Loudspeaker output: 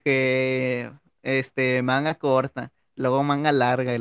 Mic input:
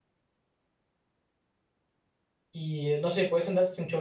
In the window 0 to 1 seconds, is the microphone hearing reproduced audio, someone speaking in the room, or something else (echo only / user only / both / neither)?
neither